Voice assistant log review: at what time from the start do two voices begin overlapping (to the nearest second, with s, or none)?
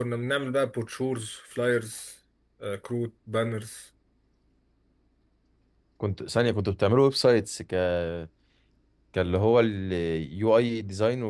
none